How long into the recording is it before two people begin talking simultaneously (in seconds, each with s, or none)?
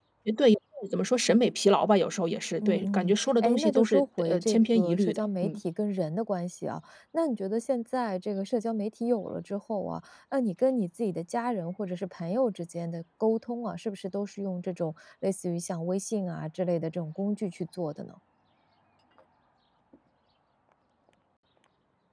2.6 s